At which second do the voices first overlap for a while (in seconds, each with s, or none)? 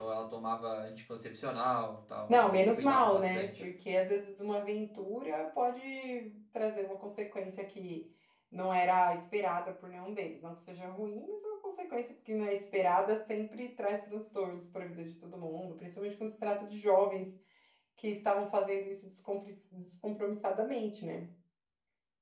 2.3 s